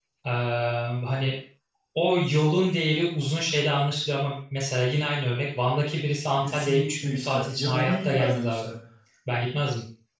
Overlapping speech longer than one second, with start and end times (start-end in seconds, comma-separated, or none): 6.5-8.6